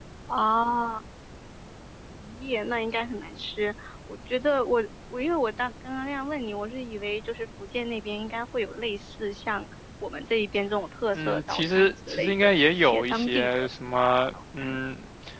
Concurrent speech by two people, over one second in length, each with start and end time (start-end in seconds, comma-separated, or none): 11.1-13.7